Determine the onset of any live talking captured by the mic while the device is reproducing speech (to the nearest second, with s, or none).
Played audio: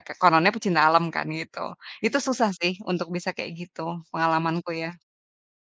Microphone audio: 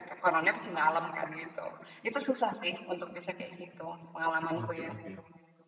5 s